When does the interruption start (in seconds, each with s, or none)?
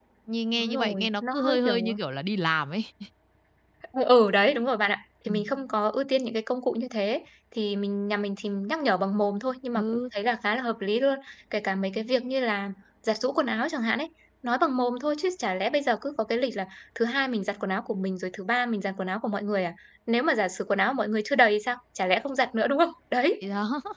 0.5 s